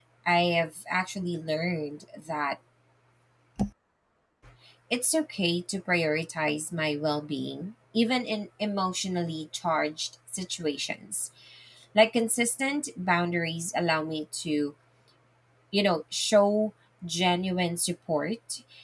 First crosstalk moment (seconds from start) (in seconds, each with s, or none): none